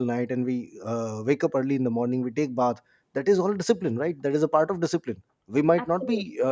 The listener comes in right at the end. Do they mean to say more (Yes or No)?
No